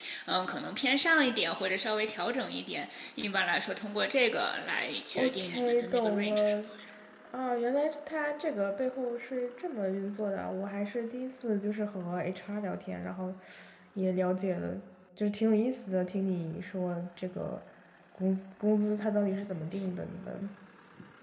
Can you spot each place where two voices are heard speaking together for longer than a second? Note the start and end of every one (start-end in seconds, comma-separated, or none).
5.2-6.5